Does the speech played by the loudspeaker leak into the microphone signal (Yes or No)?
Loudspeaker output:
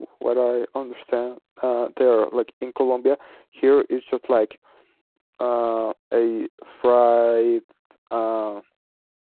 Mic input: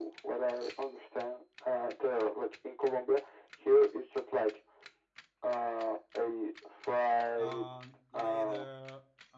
Yes